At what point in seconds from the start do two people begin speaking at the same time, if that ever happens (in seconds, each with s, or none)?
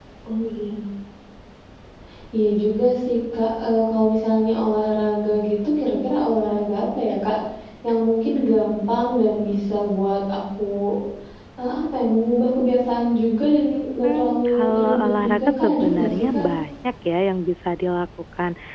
14.0 s